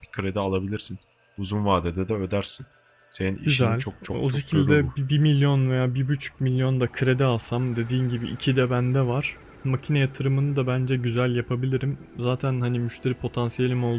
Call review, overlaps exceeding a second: present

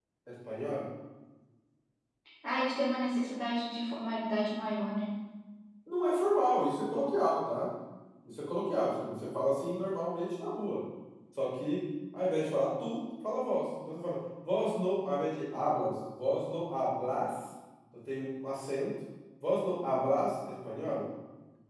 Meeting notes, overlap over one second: none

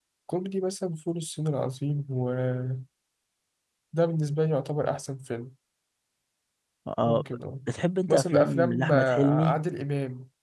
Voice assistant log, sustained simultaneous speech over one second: present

